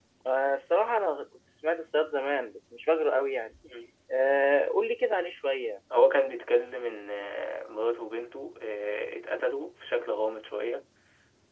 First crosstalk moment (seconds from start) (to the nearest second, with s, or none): none